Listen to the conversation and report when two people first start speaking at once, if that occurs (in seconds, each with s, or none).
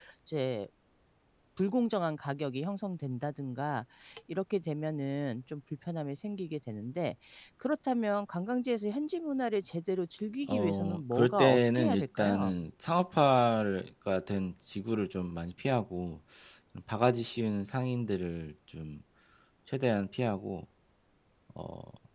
10.5 s